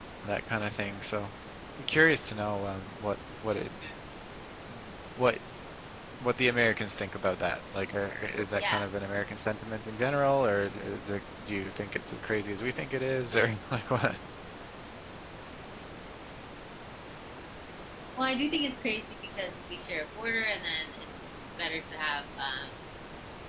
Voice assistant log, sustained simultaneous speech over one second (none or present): none